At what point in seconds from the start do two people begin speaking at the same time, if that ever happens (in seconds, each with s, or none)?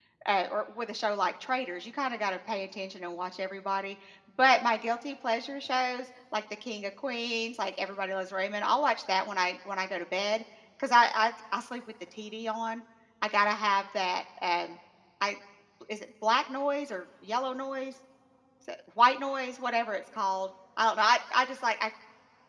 none